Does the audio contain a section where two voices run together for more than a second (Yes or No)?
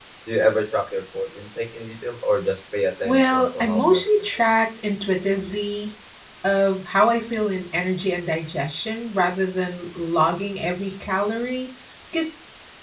Yes